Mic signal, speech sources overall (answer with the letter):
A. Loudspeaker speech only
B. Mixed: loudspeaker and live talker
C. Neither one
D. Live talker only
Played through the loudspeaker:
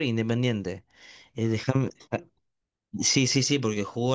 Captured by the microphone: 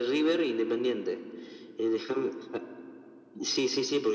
A